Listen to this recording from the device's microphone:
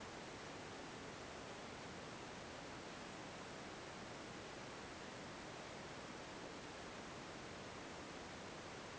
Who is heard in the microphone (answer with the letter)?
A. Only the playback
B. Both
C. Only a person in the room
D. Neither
D